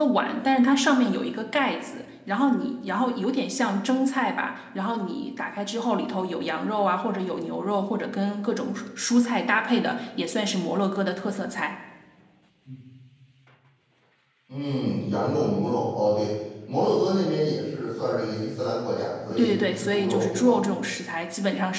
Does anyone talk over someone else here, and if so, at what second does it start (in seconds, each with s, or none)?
19.3 s